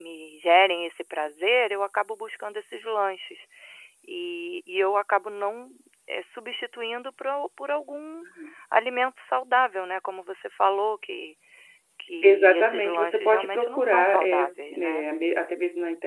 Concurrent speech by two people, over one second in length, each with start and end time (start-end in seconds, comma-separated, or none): 12.2-15.0